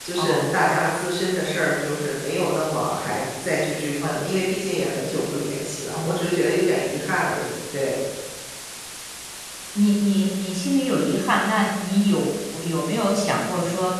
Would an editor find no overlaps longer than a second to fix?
Yes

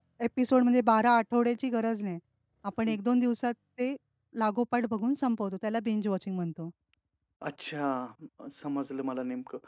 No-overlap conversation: Yes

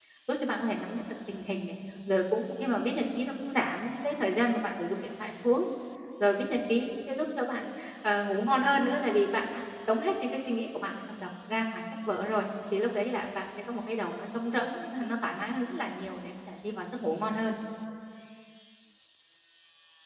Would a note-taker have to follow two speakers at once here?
No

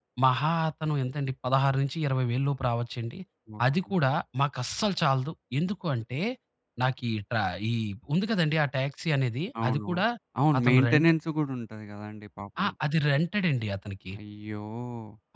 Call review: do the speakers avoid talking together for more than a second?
Yes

